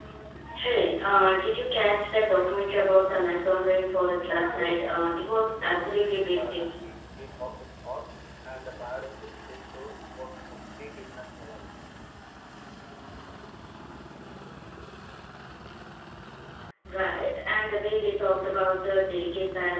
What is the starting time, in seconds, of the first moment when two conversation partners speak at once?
4 s

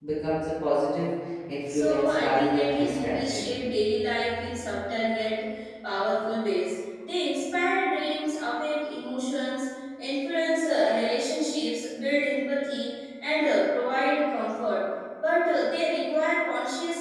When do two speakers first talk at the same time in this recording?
2 s

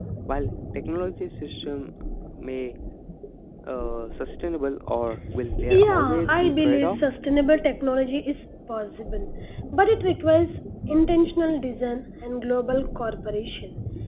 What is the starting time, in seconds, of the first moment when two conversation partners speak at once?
6 s

